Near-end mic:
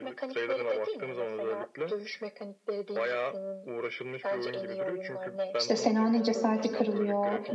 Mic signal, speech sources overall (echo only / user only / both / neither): both